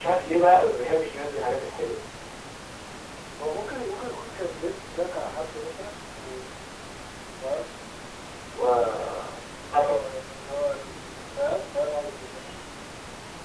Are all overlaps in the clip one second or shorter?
Yes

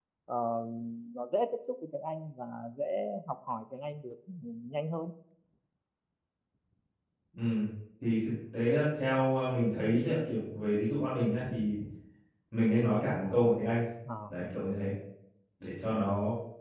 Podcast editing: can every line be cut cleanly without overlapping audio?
Yes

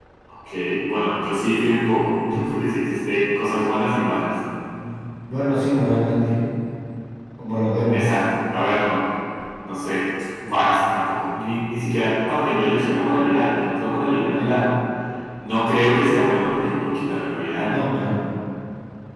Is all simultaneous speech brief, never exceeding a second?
Yes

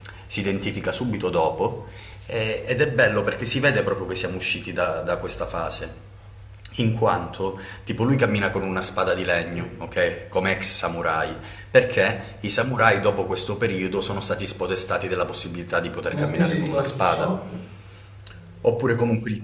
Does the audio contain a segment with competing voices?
Yes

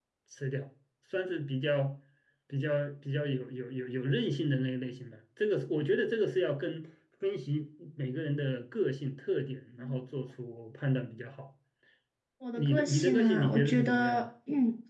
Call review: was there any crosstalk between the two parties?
Yes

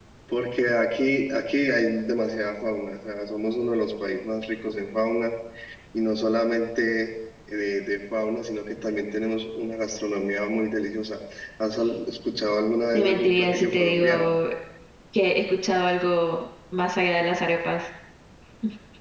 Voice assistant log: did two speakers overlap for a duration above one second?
Yes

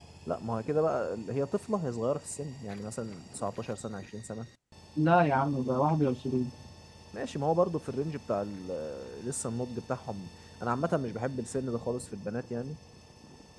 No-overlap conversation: Yes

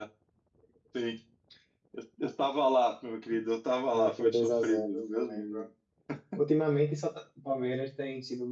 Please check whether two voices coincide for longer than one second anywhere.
Yes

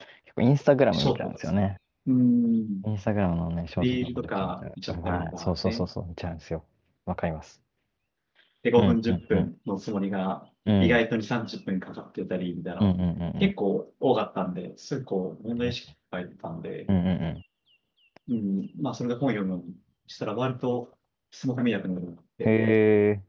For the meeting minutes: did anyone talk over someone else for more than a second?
Yes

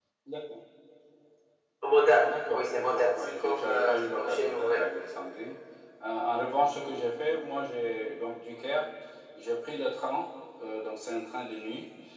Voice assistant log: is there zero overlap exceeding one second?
No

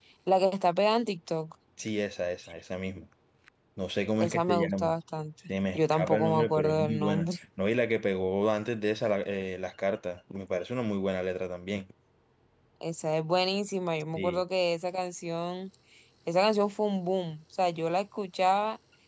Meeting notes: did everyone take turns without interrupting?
No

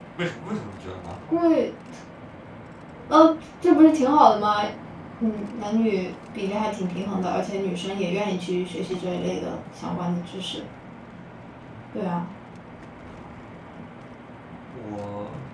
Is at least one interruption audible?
No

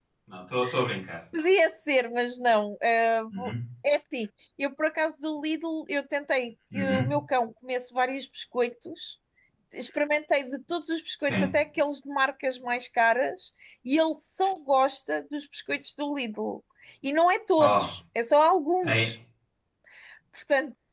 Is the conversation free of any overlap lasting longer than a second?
Yes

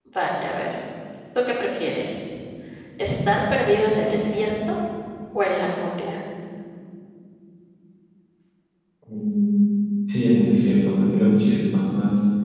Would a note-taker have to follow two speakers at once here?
No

